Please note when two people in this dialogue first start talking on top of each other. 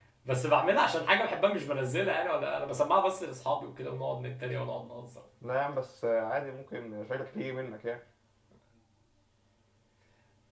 none

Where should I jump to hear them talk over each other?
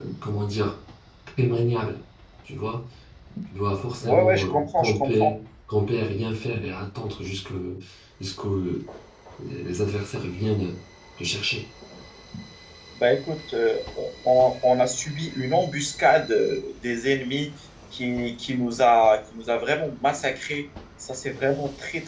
4.0 s

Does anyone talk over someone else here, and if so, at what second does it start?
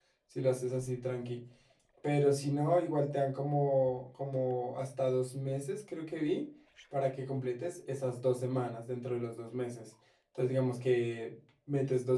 none

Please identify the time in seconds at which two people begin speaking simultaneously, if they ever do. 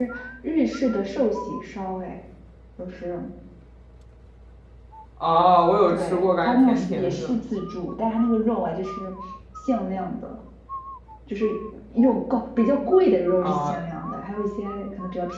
5.9 s

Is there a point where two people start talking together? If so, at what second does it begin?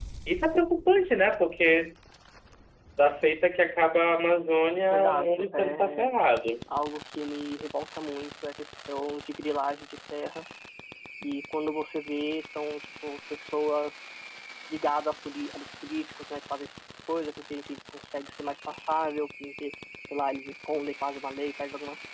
4.9 s

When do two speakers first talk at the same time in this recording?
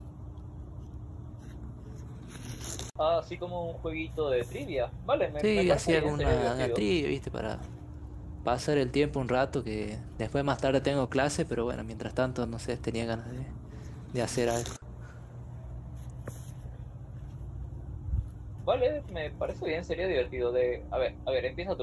5.4 s

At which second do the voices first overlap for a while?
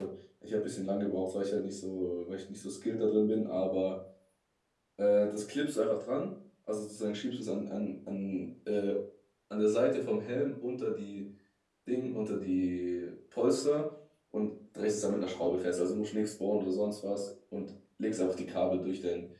none

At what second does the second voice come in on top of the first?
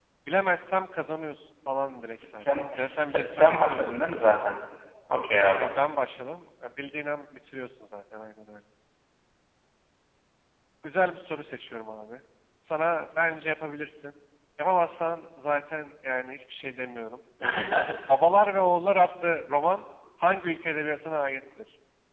2.2 s

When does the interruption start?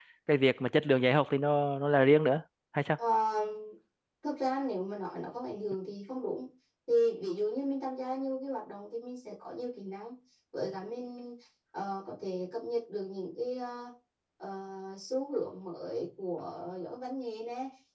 none

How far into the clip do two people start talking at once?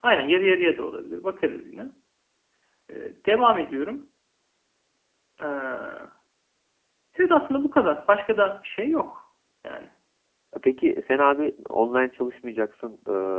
none

